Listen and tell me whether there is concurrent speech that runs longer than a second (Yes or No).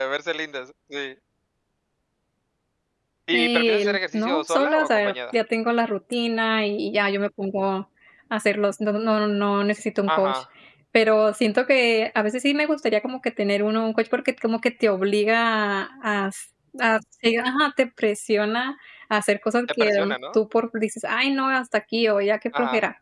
Yes